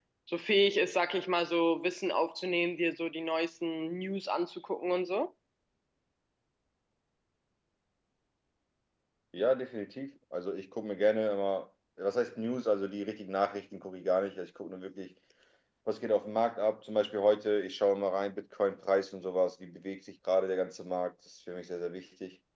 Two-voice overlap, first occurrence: none

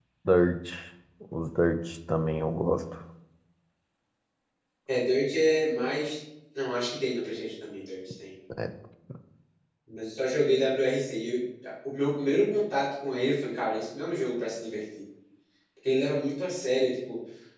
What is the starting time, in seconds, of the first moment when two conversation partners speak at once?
none

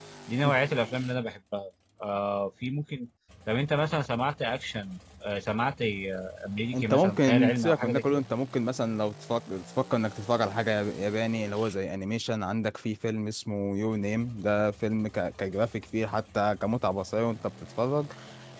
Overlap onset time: 7 s

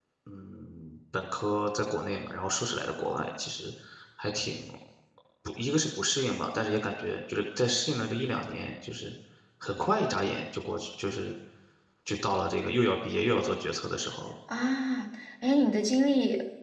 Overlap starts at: none

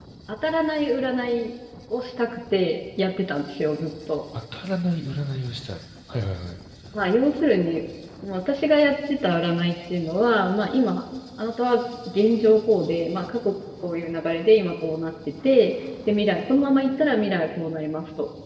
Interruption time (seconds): none

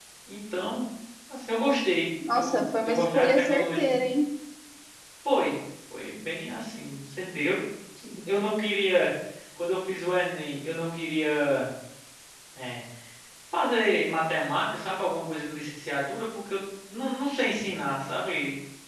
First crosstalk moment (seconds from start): 2 s

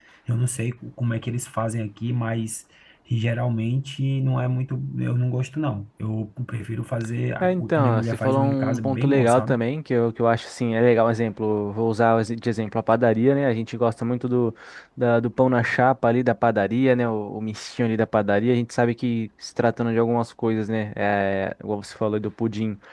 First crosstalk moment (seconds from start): 7 s

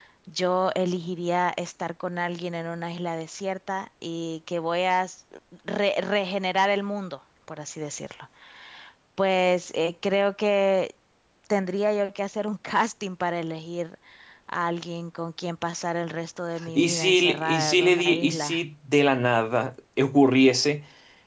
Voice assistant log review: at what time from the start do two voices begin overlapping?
17 s

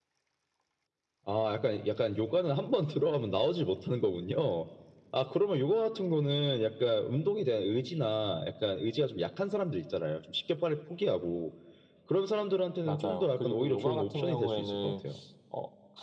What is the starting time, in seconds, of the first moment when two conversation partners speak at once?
13 s

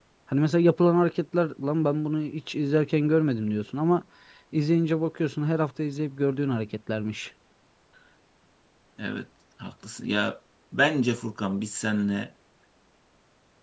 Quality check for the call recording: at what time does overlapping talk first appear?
none

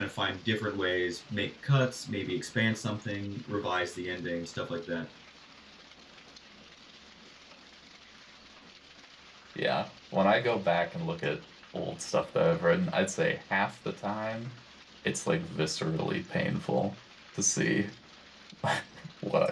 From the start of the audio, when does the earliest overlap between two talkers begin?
none

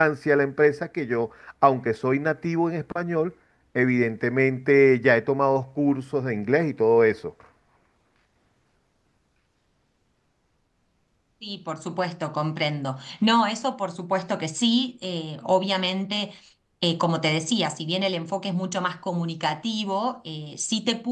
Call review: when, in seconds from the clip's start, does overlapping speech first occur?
none

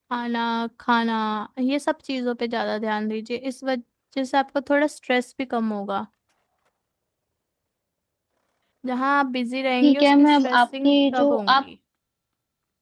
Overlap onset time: 10 s

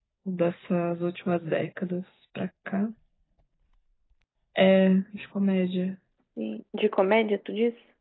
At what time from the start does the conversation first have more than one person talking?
none

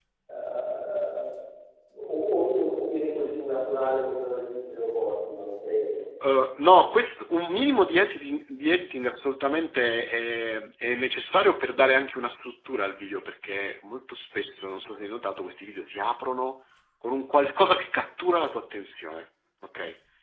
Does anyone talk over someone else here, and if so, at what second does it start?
none

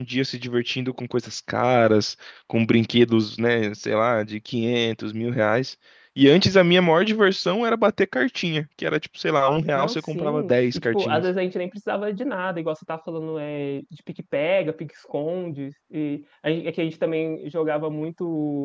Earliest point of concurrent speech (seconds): 10 s

